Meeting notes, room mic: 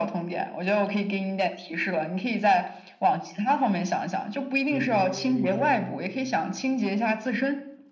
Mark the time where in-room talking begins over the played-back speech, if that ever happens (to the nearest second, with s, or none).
5 s